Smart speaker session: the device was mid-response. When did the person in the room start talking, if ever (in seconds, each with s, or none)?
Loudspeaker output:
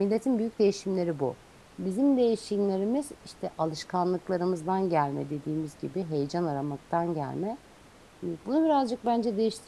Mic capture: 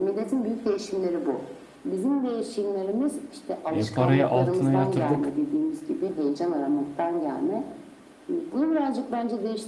3.7 s